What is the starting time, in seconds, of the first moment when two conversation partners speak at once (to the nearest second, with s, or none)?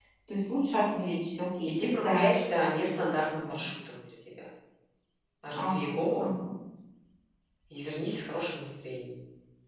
2 s